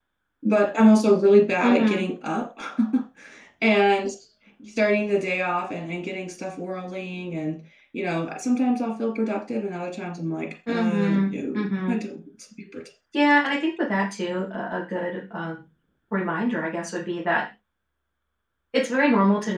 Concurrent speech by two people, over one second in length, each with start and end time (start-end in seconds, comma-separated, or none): 10.7-12.0